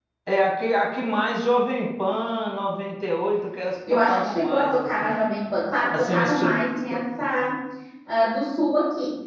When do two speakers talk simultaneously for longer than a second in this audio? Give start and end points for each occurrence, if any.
3.9-5.2, 5.9-7.5

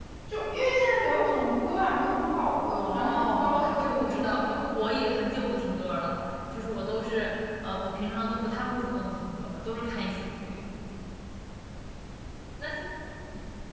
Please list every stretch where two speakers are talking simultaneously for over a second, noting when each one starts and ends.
2.8-4.6

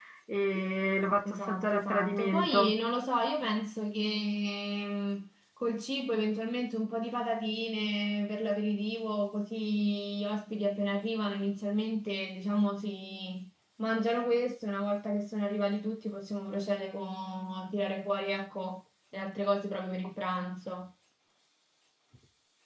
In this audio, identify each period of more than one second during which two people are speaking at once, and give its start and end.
1.3-2.7

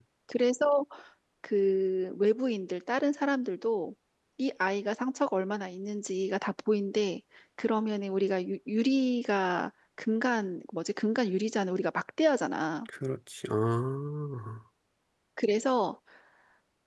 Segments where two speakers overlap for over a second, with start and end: none

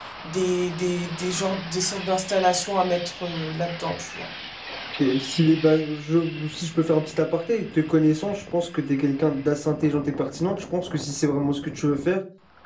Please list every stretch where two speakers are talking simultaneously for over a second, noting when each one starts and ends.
none

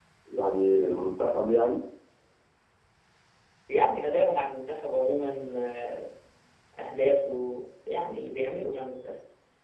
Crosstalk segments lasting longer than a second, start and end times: none

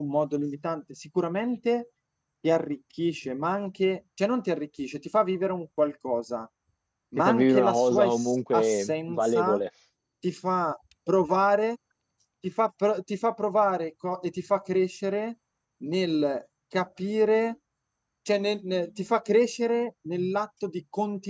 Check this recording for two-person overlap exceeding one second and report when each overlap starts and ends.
7.2-9.6

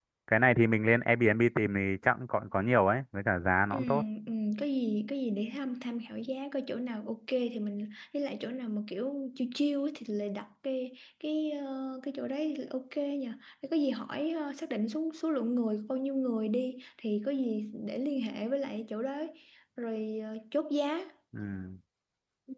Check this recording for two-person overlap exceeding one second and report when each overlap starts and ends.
none

